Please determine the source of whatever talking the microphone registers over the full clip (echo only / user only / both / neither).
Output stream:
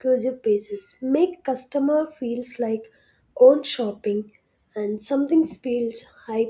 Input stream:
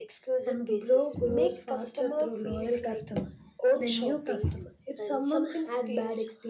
both